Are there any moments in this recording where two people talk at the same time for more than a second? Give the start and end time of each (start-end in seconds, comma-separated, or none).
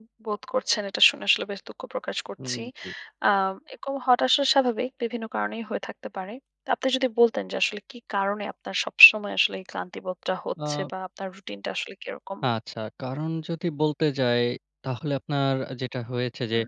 none